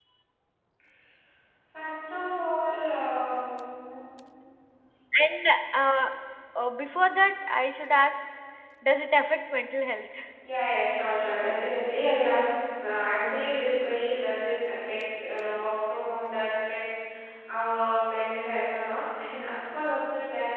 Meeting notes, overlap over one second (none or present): none